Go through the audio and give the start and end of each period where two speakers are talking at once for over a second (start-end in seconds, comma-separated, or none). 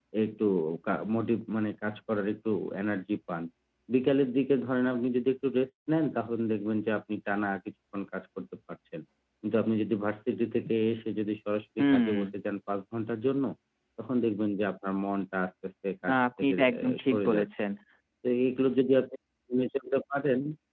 16.1-17.5